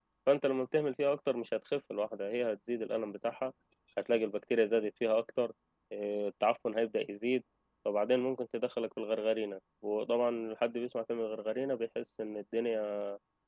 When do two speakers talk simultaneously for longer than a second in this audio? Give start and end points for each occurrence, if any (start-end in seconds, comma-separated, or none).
none